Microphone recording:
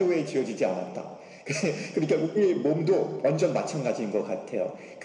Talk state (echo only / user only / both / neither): echo only